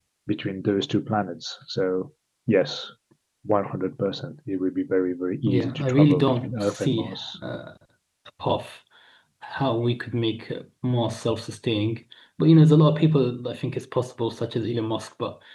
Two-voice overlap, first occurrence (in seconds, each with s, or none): 5.4 s